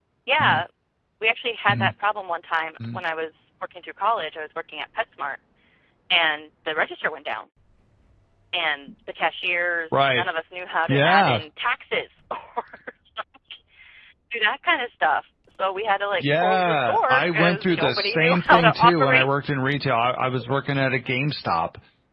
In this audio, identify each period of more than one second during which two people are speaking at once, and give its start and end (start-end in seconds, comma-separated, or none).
16.2-19.3